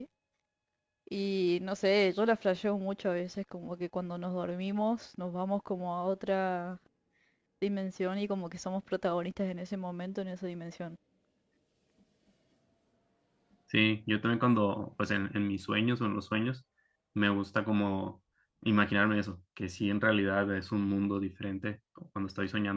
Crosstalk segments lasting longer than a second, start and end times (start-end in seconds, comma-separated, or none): none